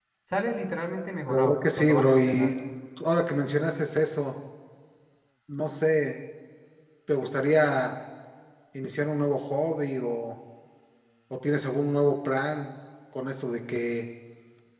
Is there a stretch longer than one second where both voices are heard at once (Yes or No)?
Yes